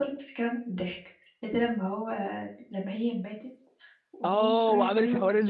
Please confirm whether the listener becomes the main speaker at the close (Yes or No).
Yes